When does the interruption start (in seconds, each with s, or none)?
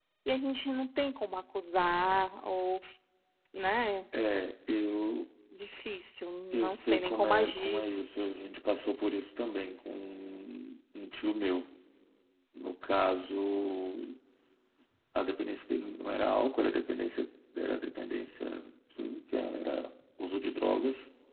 6.5 s